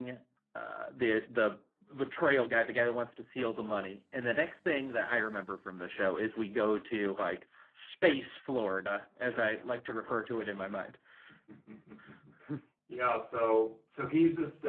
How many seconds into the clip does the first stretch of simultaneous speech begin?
none

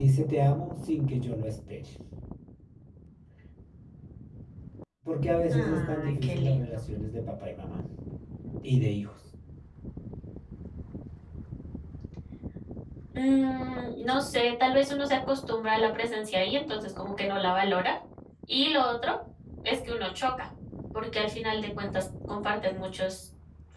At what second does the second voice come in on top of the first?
5.5 s

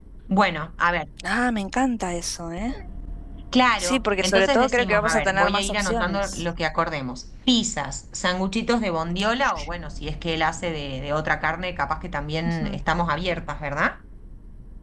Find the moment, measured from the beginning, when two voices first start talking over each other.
3.8 s

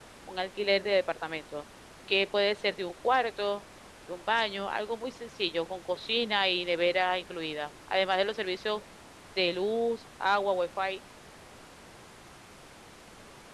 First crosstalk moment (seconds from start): none

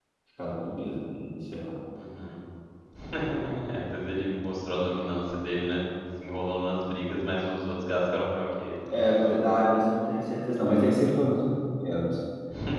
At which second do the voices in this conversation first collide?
none

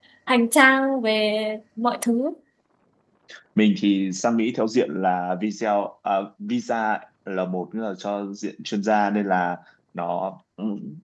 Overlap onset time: none

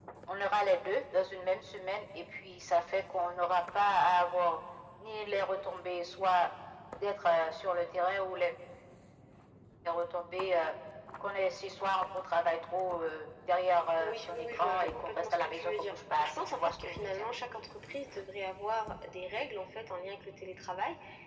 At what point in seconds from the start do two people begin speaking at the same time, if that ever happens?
14.0 s

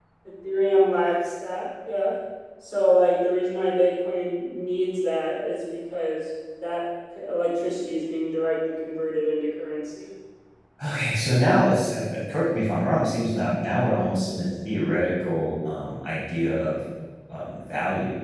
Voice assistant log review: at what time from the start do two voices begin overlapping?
none

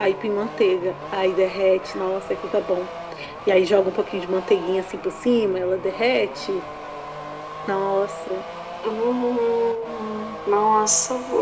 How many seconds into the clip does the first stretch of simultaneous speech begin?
none

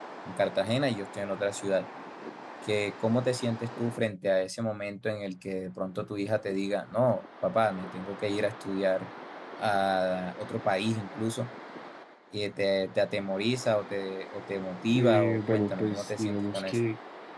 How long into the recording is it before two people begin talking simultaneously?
14.9 s

